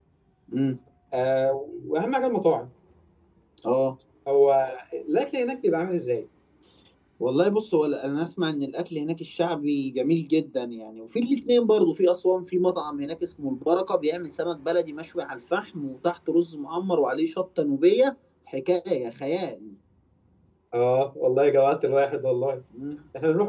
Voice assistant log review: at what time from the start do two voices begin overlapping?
none

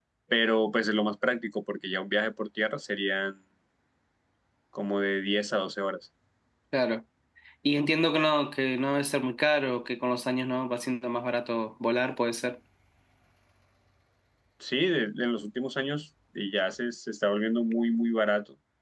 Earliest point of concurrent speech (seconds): none

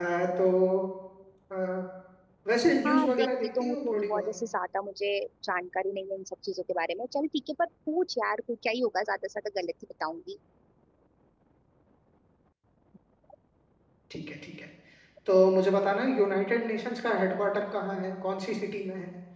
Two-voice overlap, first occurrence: 2.8 s

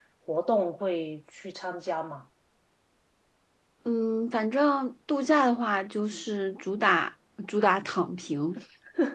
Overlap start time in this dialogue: none

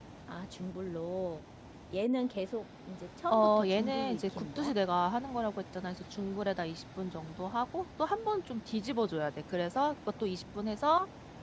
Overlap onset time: 3.3 s

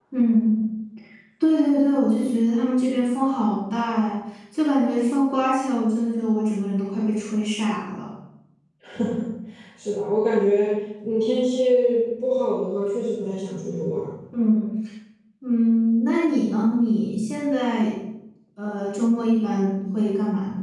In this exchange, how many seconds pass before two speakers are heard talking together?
none

